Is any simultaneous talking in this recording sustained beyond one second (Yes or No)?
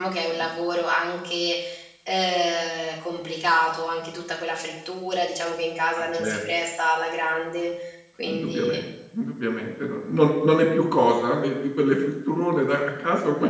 No